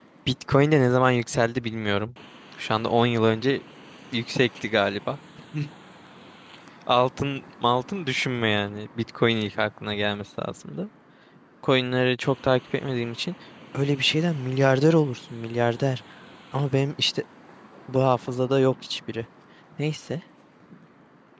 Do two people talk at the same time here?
No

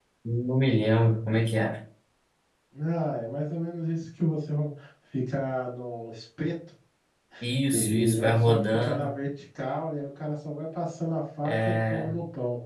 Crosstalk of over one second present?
Yes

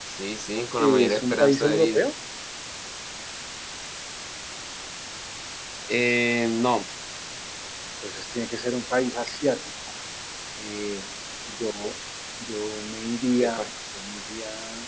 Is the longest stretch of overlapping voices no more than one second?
No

